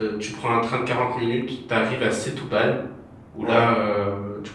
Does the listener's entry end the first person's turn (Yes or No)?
No